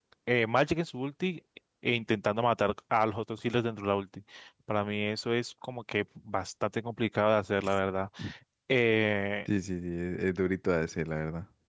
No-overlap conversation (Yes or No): Yes